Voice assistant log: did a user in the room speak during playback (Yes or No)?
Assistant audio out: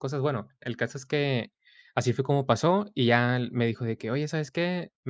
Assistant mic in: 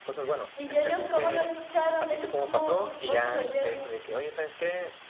Yes